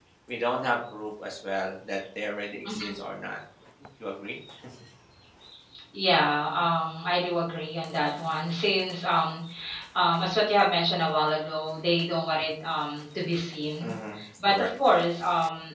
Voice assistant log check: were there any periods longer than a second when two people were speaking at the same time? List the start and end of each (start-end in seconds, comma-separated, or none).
none